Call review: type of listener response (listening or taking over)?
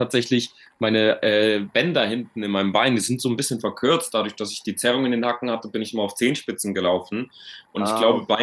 listening